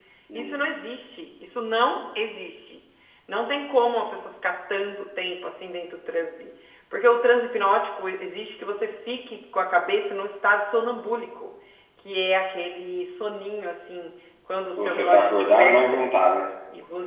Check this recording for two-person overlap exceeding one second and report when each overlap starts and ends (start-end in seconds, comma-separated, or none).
14.8-16.1